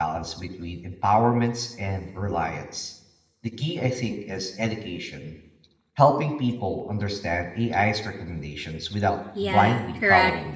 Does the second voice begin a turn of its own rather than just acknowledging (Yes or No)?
Yes